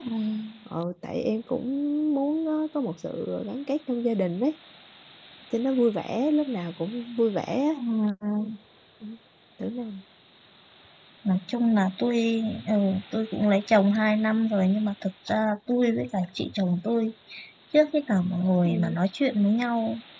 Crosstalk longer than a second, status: none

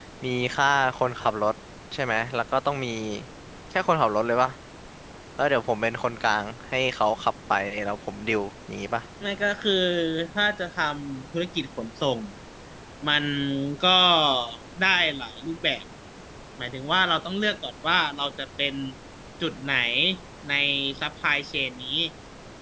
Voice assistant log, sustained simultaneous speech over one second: none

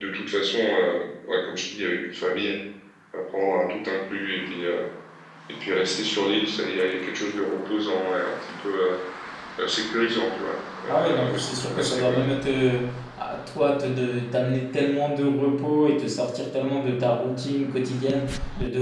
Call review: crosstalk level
present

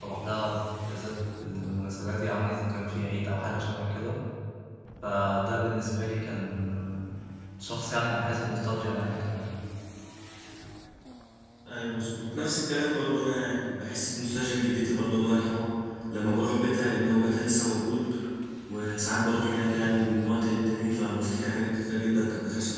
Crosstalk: none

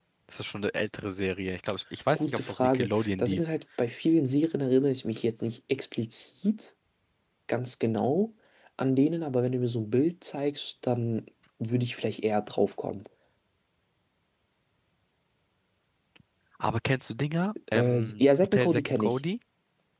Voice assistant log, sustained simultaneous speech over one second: present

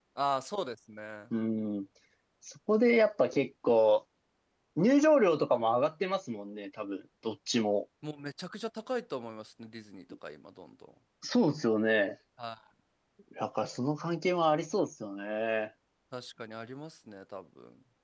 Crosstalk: none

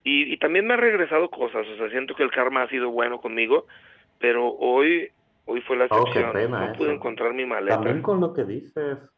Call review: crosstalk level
present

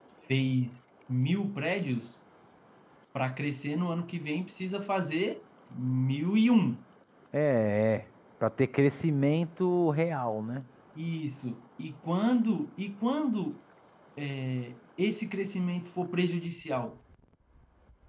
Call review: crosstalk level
none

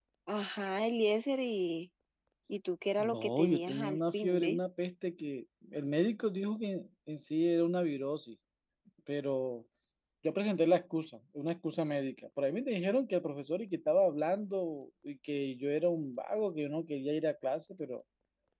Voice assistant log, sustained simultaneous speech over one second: present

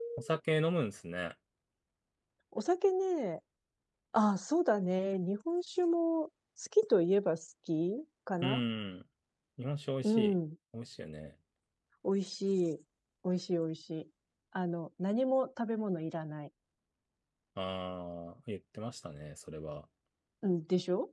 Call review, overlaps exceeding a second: none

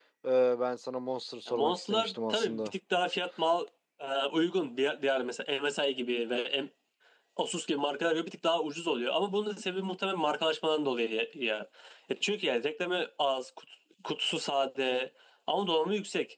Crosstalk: present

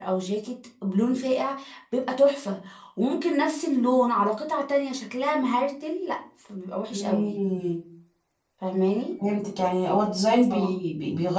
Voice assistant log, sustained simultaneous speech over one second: none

